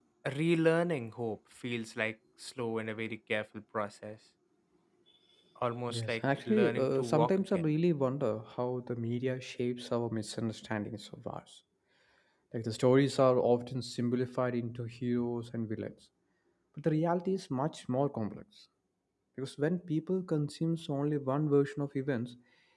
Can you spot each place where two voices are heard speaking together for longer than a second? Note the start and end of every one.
5.9-7.6

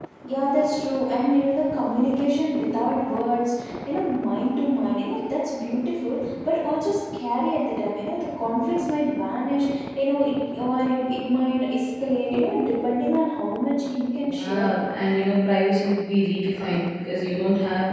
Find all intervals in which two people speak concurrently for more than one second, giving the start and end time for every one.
none

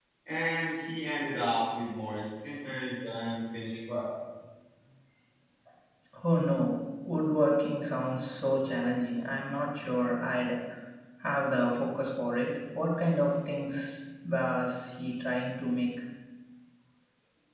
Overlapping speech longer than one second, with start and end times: none

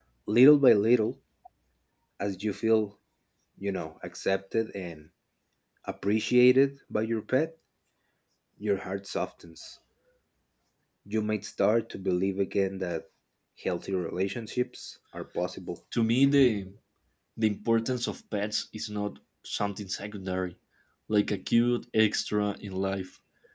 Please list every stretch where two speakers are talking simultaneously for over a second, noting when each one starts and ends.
none

